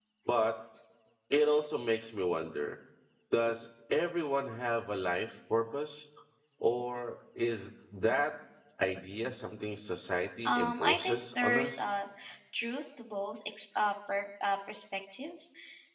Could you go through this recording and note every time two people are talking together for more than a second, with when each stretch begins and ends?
10.4-11.8

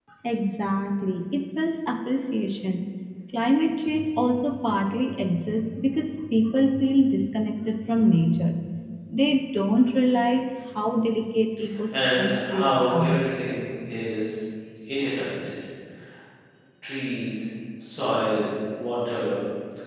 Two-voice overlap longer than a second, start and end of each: 11.9-13.2

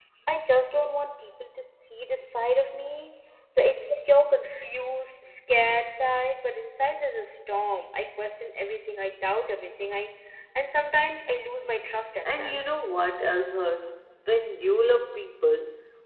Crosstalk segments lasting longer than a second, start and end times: none

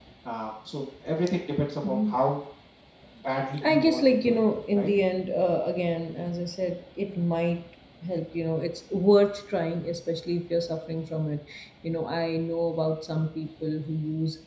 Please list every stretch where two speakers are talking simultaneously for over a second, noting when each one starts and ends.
3.6-4.9

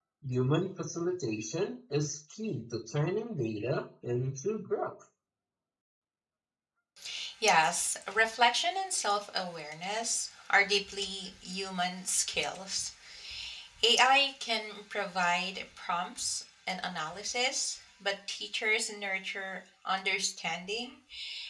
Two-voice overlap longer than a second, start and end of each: none

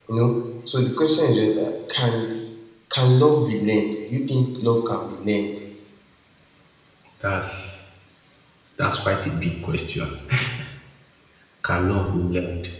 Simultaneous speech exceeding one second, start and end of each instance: none

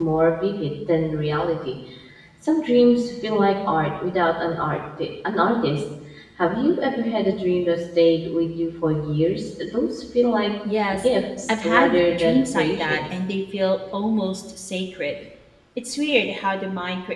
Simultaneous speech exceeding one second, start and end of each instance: 11.5-13.0

